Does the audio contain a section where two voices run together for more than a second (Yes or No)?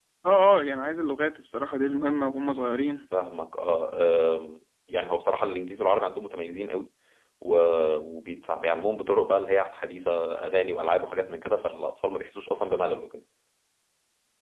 No